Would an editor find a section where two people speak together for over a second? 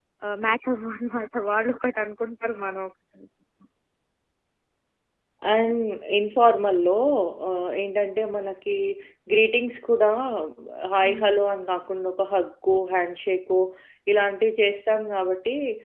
No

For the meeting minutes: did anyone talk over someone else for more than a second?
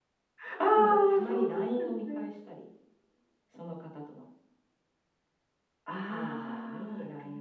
Yes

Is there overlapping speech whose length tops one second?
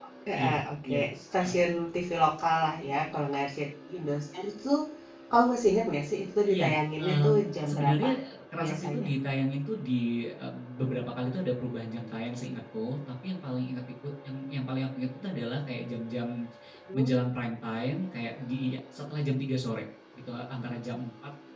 Yes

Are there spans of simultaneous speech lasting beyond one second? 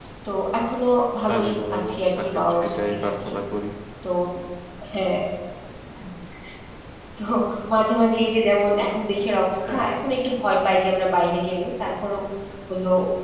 Yes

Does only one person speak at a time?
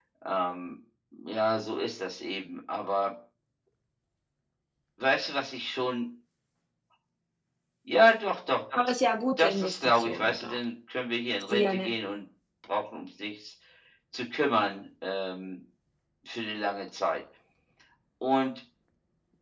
No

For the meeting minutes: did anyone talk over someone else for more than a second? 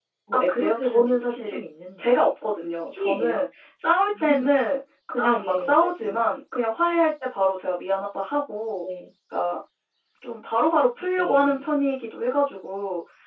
Yes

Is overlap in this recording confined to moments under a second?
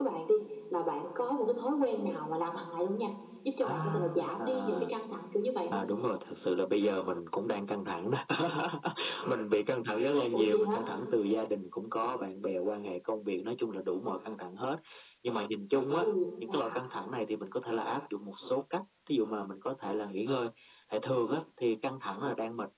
No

